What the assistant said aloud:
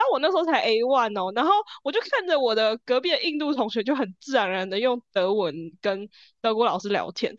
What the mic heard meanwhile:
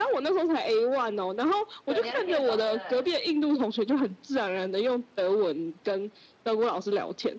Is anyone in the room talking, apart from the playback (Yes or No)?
Yes